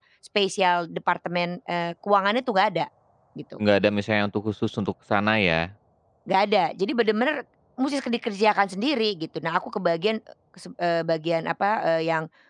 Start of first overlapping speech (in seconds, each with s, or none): none